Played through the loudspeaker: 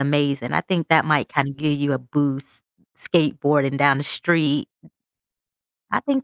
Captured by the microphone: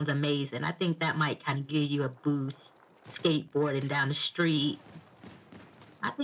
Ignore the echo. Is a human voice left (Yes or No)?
No